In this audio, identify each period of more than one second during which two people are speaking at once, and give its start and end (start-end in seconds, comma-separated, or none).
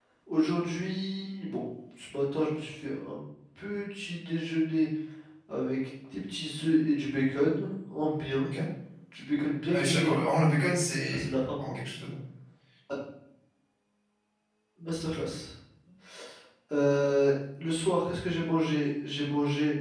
none